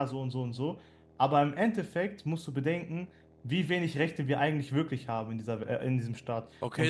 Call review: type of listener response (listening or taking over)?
taking over